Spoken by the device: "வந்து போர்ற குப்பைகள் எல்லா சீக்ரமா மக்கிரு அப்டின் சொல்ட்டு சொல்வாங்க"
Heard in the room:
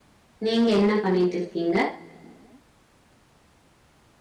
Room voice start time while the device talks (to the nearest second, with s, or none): 0 s